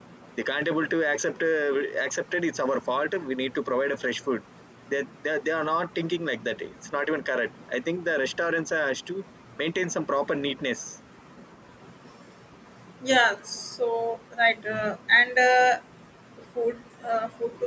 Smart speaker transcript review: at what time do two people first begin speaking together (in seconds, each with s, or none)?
none